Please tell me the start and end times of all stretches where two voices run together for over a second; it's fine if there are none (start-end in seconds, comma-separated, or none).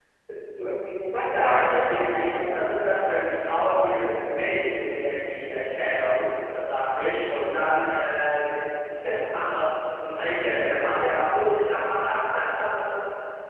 1.3-2.7